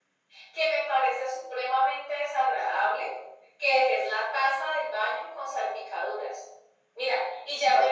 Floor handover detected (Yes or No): No